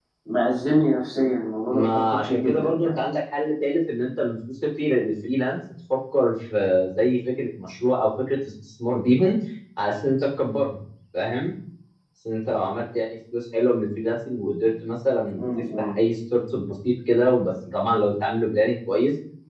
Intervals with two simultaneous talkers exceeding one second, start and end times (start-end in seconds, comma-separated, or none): 1.7-3.0